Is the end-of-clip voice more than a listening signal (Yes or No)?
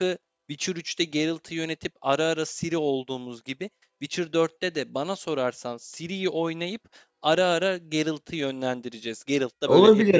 Yes